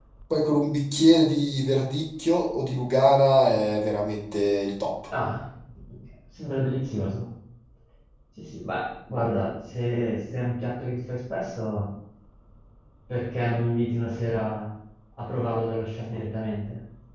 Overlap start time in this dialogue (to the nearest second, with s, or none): none